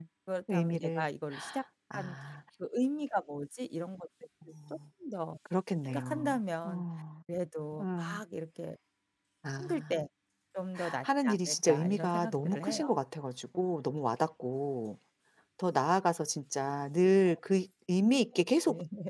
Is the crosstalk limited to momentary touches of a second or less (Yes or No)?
No